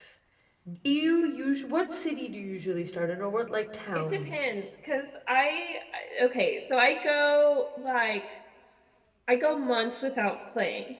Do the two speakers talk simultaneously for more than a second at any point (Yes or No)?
No